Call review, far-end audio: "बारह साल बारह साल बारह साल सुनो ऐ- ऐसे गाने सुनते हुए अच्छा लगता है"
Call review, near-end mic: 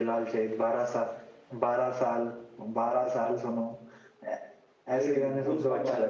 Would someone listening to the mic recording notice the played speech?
Yes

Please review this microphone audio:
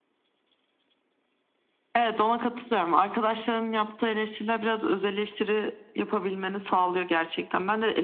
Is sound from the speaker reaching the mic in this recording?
Yes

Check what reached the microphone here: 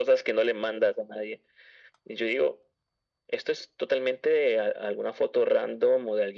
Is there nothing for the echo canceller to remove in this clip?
No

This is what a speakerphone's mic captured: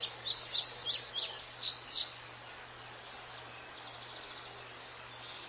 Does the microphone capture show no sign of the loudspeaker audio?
Yes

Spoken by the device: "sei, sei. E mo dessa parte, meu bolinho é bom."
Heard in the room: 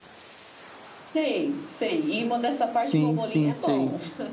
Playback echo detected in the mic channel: Yes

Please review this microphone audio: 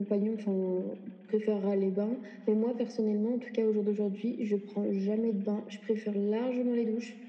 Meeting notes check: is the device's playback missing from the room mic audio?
No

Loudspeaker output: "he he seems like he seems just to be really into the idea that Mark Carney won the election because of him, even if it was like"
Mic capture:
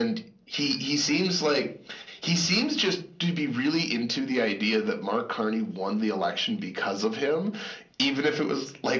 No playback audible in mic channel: No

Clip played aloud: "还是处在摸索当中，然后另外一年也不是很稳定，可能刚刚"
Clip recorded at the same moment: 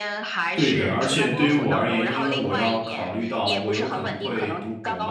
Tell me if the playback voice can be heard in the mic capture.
Yes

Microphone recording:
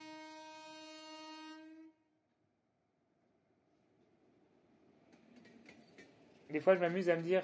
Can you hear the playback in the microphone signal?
No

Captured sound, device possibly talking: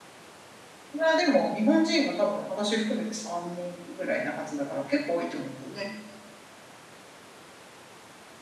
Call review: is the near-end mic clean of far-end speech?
Yes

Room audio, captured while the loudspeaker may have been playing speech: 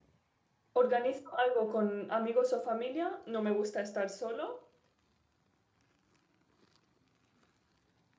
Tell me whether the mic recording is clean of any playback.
Yes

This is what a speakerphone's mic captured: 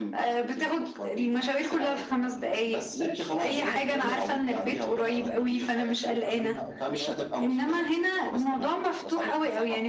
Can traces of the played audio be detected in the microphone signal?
Yes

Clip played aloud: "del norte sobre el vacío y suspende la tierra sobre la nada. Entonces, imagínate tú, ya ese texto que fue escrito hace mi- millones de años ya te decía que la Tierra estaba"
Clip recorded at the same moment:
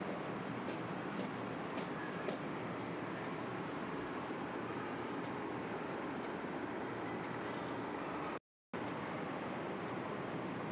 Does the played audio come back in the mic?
No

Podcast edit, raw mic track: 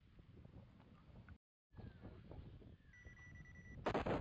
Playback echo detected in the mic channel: No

